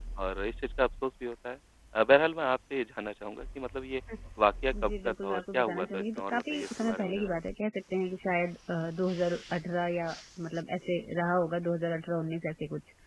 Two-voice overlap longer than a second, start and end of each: 4.8-7.3

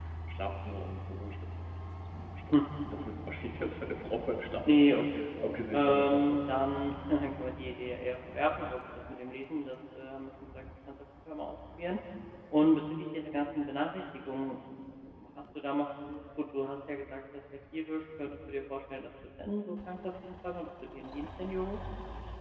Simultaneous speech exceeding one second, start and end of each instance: 4.7-6.4

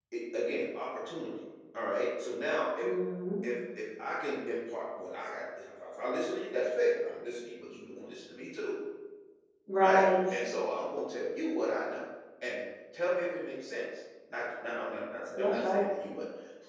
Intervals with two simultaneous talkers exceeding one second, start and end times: none

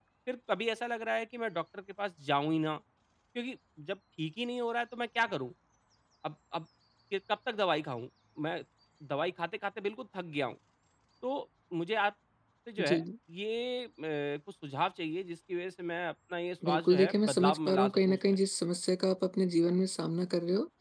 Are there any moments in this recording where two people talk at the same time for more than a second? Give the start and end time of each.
16.6-18.2

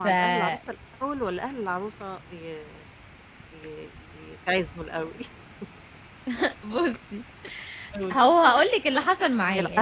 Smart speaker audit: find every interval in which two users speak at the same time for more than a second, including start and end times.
none

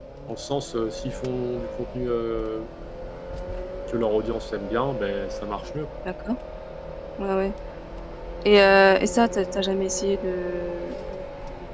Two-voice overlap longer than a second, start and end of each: none

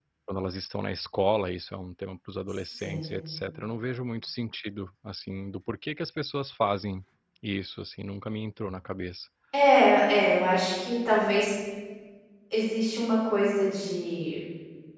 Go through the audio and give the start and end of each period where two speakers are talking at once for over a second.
none

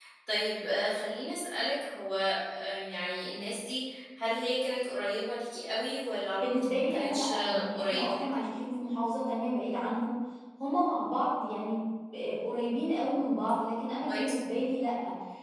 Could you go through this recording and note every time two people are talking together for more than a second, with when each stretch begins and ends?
6.4-8.3

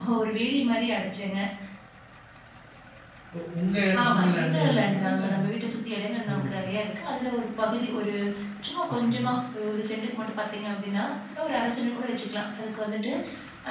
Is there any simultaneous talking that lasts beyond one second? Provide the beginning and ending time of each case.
4.0-5.2

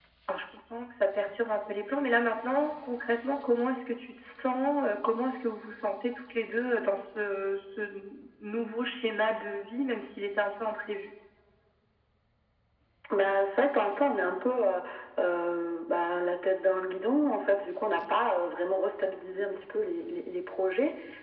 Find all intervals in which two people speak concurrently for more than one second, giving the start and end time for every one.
none

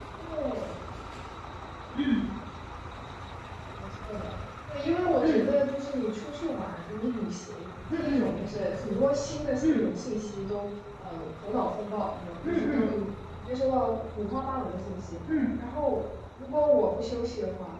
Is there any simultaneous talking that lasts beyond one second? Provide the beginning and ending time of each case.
none

